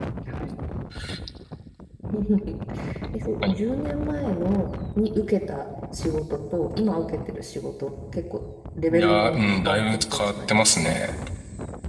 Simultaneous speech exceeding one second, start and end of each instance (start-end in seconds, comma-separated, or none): 8.9-10.9